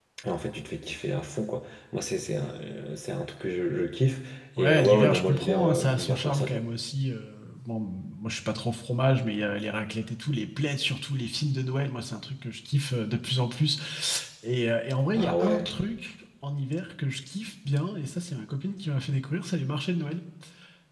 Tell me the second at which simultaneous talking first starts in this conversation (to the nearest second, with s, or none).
5 s